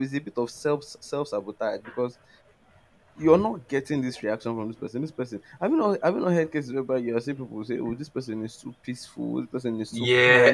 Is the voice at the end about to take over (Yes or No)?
Yes